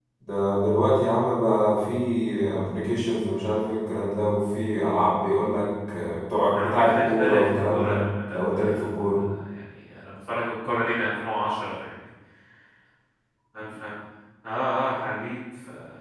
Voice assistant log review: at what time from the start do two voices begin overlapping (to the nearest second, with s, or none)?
7 s